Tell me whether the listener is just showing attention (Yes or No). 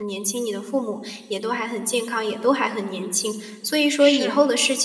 Yes